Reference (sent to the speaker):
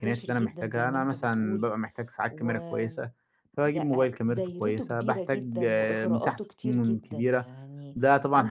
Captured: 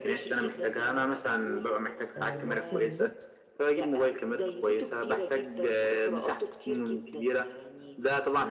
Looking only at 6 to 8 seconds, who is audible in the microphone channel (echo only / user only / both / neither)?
echo only